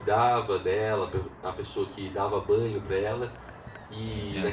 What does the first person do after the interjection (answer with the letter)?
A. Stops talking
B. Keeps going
B